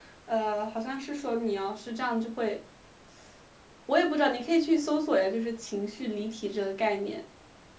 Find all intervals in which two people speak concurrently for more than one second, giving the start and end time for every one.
none

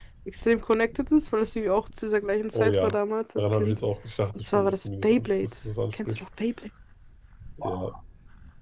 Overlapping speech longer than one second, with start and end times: 4.4-5.6

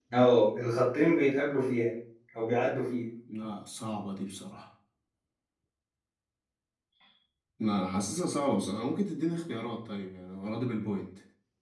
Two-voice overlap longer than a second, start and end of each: none

